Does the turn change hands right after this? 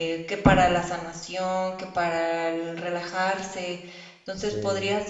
No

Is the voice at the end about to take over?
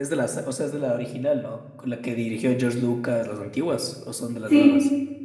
Yes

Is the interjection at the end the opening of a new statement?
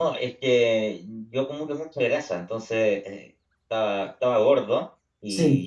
No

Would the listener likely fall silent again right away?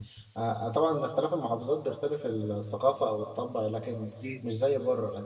Yes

